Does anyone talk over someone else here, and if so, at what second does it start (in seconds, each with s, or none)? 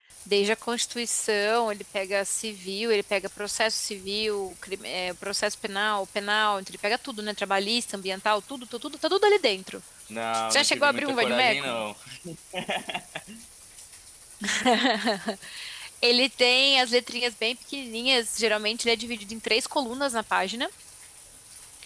10.3 s